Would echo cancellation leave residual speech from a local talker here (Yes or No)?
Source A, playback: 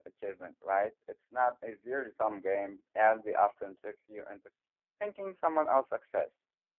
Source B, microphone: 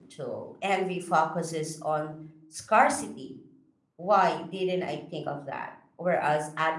Yes